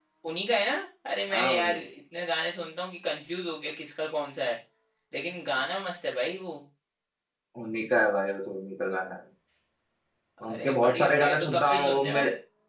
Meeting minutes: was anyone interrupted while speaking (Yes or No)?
Yes